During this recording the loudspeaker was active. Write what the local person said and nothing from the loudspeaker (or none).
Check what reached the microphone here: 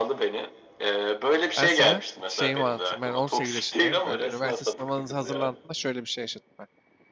Ben sana şeyimi anlatayım. Ben 18 yaşındayım. Böyle üniversite sınavınıza hazırlandığımda şöyle bir şey yaşadım ben.